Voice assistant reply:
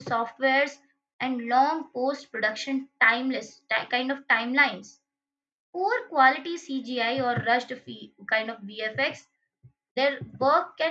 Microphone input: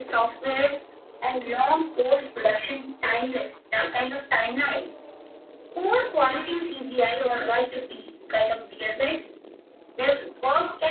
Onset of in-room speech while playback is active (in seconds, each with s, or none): none